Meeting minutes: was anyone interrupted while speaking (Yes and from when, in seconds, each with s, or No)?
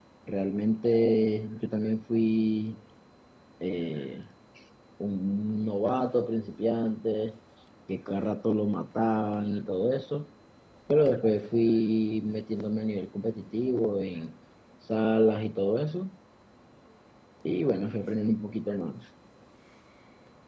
No